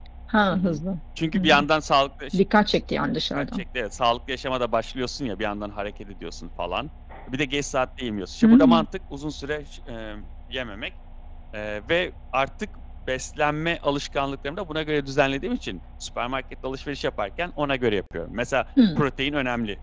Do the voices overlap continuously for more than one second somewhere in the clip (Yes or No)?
No